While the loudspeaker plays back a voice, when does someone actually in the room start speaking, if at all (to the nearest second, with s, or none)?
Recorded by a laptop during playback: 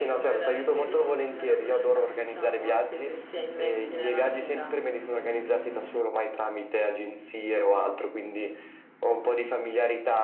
none